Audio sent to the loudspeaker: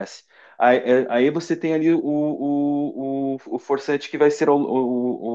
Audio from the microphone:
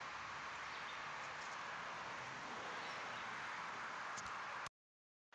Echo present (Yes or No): No